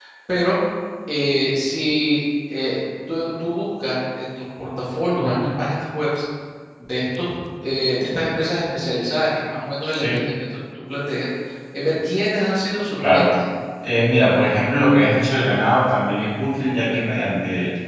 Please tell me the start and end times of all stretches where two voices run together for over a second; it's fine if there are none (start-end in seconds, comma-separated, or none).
none